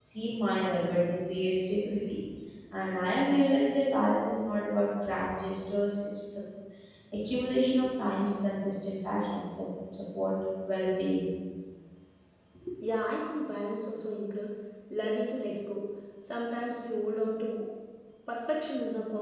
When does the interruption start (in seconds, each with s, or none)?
none